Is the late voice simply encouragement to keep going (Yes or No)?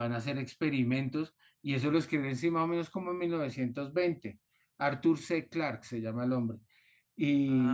Yes